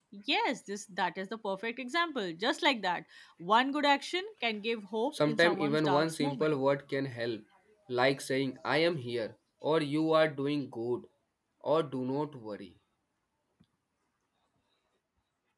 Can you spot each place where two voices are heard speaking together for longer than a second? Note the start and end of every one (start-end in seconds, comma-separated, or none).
5.2-6.6